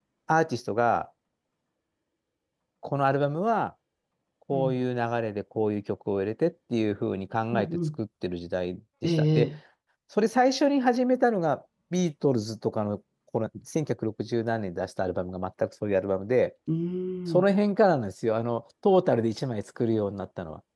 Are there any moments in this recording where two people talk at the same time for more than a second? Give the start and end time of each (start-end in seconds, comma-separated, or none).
none